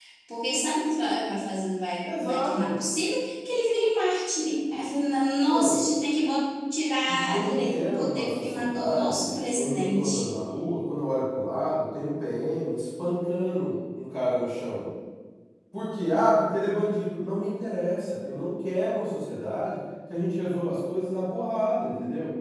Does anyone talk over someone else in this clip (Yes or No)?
Yes